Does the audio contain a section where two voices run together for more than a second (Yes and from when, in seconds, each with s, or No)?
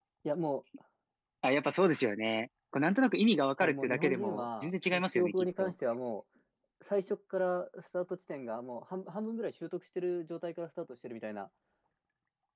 Yes, from 3.6 s